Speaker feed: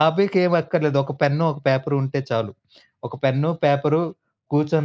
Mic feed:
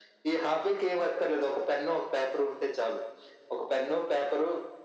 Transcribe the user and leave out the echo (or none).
none